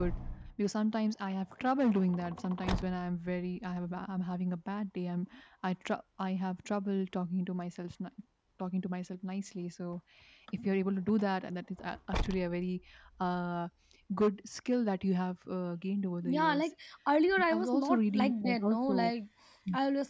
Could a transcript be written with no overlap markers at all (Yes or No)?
No